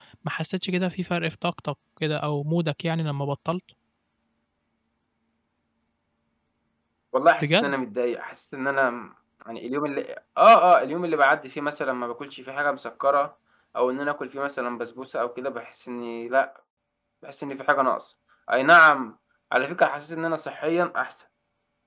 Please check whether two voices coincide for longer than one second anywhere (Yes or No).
No